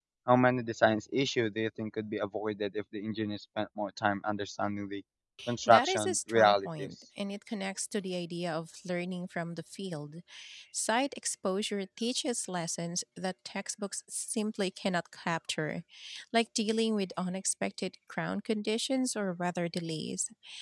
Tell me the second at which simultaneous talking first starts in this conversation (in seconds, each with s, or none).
5.7 s